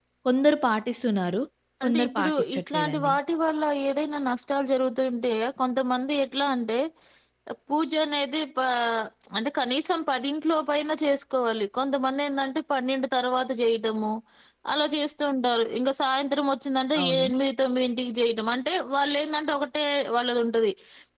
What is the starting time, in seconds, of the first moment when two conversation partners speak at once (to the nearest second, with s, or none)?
2 s